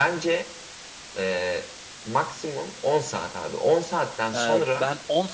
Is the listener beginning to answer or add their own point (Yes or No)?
Yes